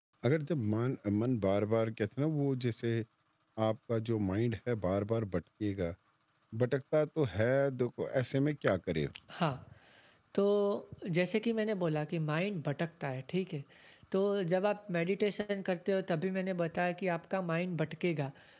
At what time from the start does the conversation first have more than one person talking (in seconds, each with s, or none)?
none